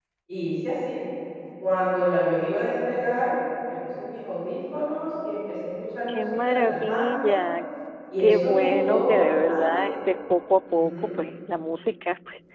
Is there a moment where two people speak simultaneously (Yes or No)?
Yes